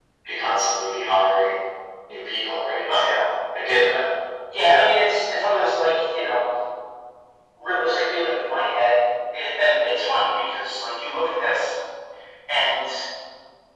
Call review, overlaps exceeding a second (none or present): none